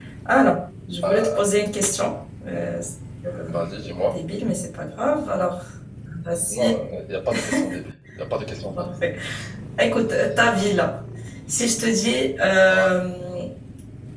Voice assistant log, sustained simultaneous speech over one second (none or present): none